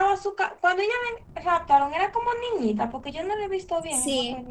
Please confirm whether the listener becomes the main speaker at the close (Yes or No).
Yes